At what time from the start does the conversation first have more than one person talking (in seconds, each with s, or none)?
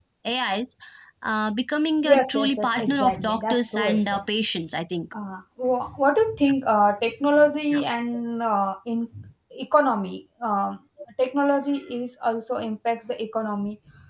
2.1 s